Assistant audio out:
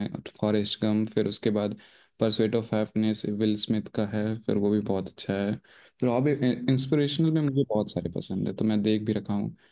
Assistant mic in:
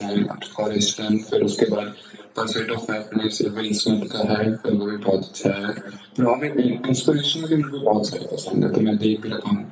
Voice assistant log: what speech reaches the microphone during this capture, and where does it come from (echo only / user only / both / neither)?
echo only